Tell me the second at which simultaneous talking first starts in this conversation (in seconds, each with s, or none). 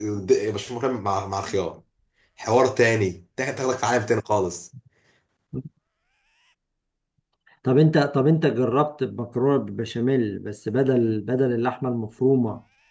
none